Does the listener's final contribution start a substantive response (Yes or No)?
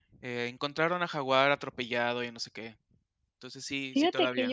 Yes